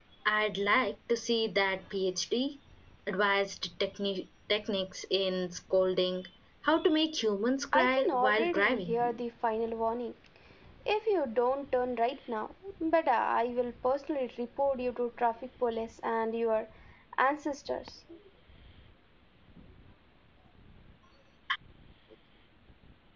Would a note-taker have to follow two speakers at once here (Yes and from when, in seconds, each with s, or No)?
Yes, from 7.7 s